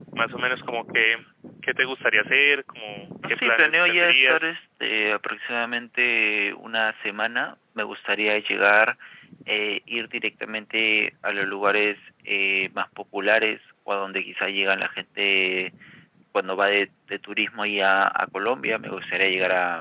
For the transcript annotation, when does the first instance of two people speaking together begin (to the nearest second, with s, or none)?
3 s